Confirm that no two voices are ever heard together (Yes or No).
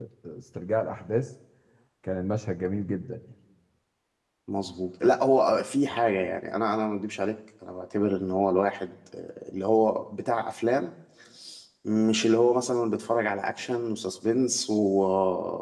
Yes